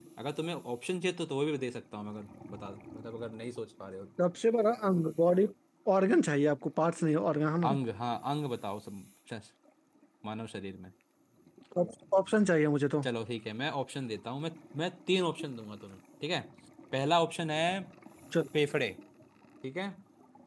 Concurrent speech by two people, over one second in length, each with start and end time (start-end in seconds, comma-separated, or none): none